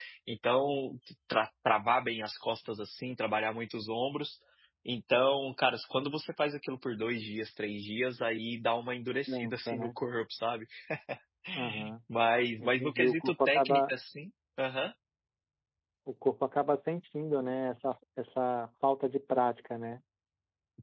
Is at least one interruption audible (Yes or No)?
Yes